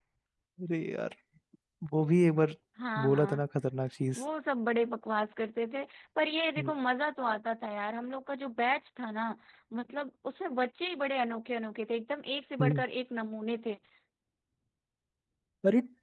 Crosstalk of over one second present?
No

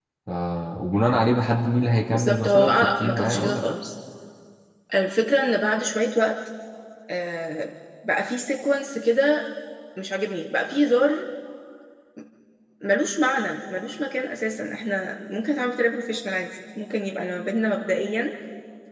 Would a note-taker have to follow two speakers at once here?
Yes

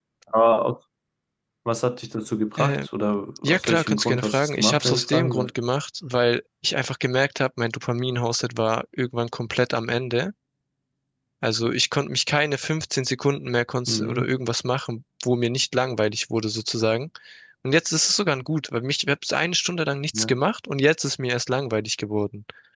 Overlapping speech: Yes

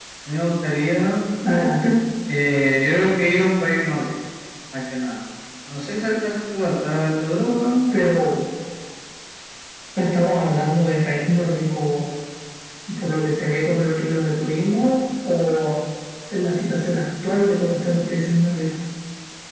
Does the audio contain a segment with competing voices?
No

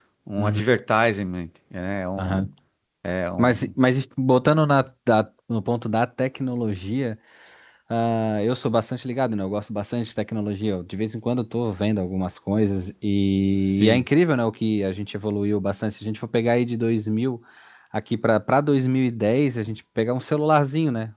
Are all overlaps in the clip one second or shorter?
Yes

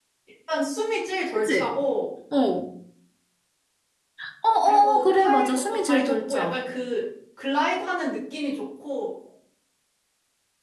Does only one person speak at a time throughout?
No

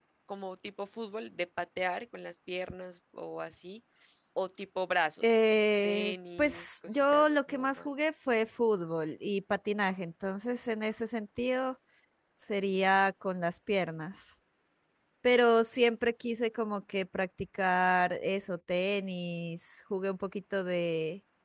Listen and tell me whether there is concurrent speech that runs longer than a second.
Yes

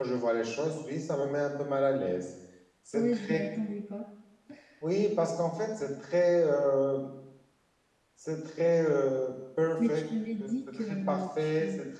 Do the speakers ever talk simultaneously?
Yes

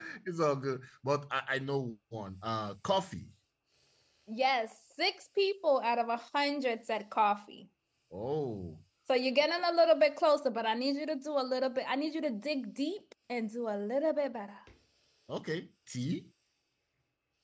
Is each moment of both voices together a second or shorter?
Yes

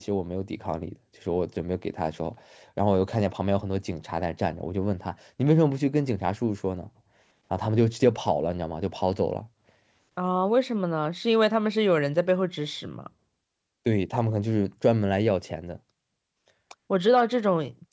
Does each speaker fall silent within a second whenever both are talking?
Yes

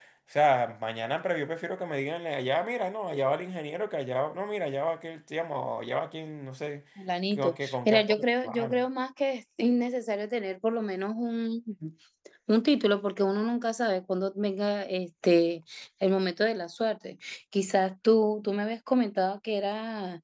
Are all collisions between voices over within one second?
No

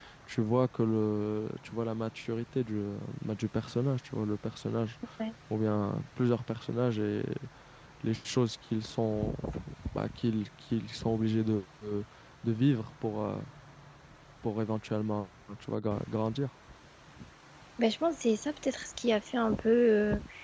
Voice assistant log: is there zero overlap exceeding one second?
Yes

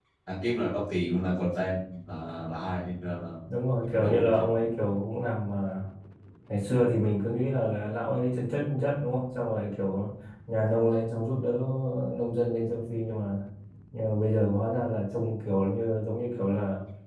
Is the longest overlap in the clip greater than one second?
No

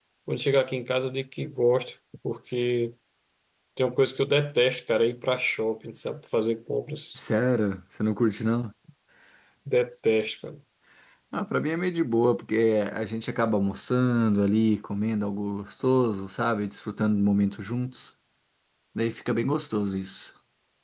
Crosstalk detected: No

